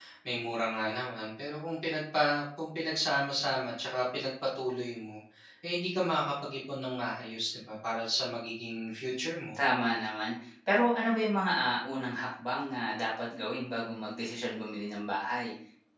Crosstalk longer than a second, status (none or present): none